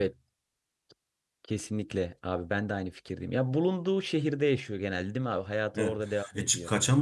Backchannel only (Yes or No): No